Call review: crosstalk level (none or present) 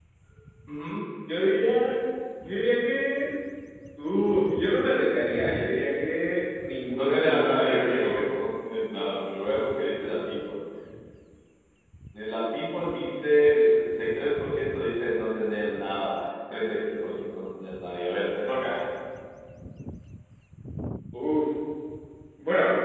present